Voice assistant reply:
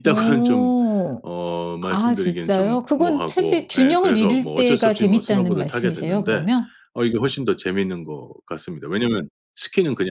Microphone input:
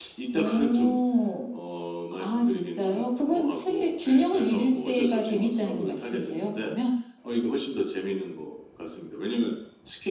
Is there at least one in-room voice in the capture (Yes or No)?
No